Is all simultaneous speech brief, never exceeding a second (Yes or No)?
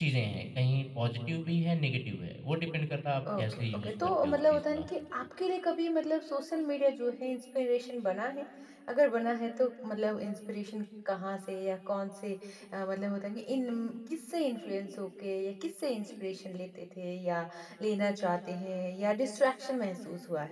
No